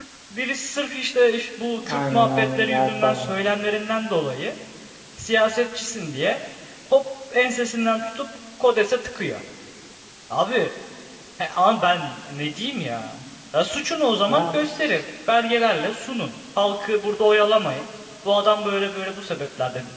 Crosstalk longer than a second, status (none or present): present